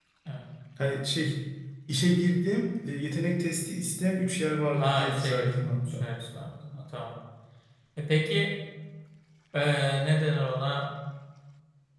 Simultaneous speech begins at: 4.8 s

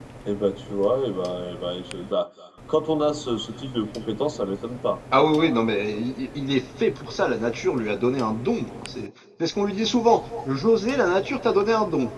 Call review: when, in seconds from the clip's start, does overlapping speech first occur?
none

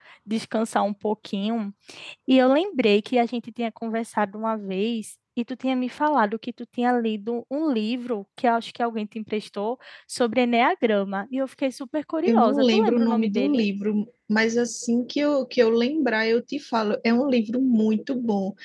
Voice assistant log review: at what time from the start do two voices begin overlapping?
12.2 s

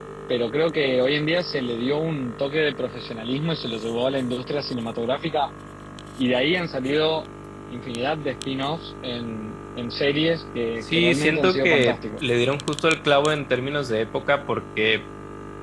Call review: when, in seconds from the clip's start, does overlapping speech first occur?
10.8 s

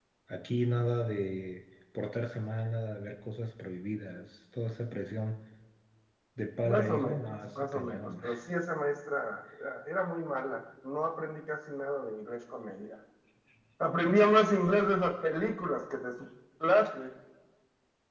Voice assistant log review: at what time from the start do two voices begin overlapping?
6.6 s

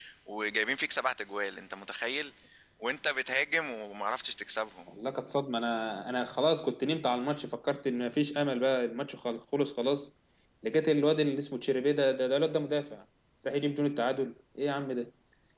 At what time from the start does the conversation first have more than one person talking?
none

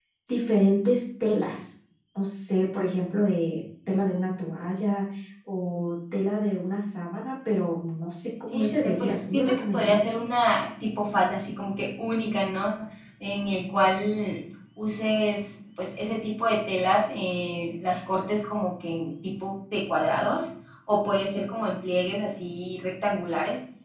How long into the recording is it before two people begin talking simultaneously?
8.5 s

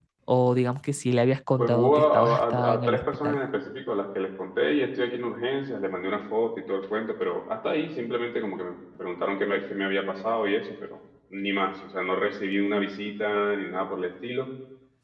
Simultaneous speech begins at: 1.6 s

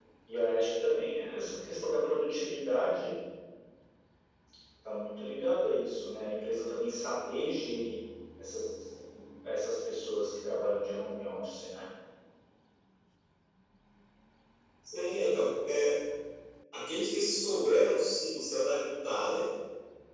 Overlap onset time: none

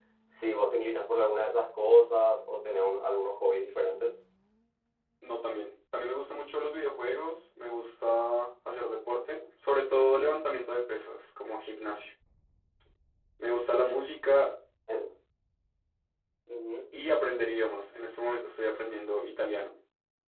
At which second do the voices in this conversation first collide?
none

